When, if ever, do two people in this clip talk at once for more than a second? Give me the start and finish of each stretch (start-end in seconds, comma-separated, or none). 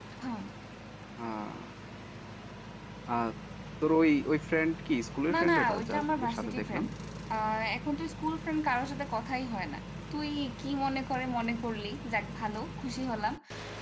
5.3-6.8